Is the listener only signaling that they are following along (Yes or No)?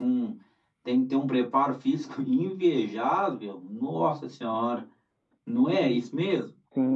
No